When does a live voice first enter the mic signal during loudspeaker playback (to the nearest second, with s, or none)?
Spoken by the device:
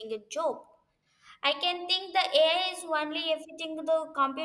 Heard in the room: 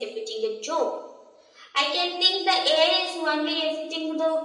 none